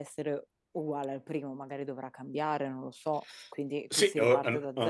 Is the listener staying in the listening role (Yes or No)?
No